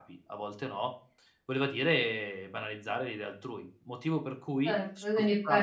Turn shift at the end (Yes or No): Yes